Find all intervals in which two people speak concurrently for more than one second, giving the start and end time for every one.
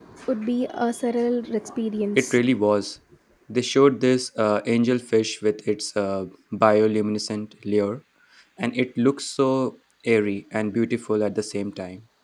none

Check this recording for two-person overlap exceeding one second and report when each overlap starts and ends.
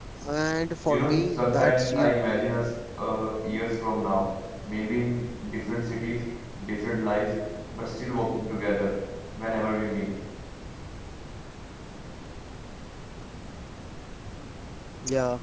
0.9-2.2

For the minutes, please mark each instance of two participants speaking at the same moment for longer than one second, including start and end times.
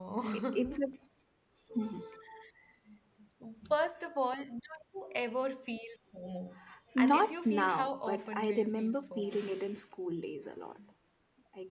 7.0-9.5

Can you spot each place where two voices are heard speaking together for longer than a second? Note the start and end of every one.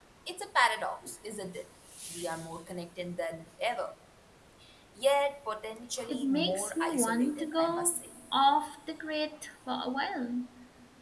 6.1-8.0

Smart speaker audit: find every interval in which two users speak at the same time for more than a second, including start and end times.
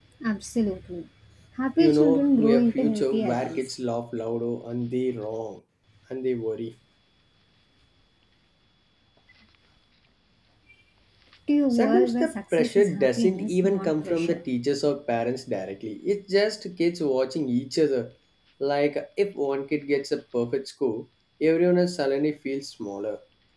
1.8-3.6, 11.7-14.4

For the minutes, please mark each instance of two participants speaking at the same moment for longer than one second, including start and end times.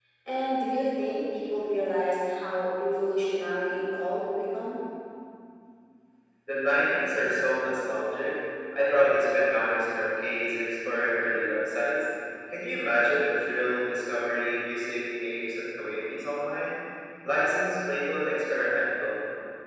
none

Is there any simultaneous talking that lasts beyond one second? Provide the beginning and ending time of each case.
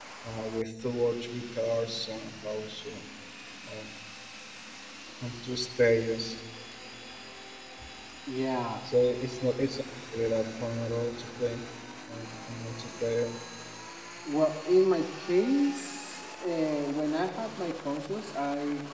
none

